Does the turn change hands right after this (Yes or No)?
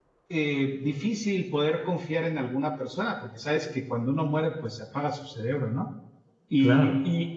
No